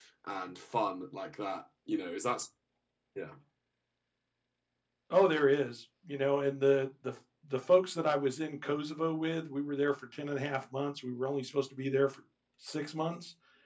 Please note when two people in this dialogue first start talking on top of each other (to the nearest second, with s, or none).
none